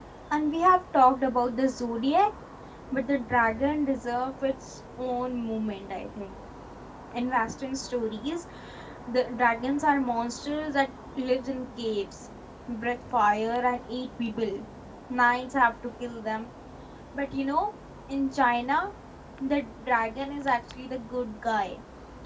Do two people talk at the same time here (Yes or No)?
No